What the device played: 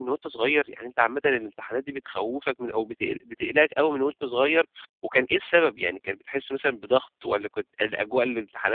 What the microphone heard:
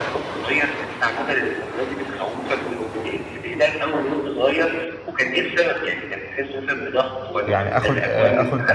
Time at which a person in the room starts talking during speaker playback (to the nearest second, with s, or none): 7 s